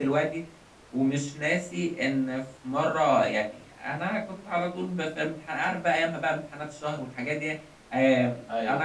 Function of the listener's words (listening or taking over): listening